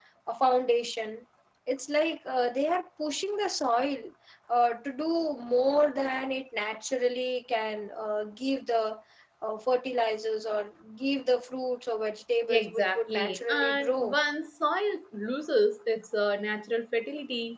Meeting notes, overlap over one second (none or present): present